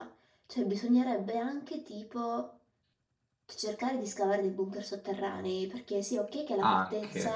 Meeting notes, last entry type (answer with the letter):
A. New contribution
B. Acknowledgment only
B